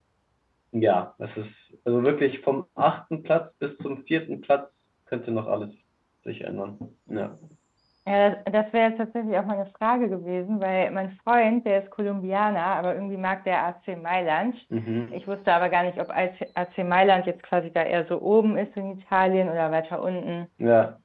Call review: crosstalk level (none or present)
none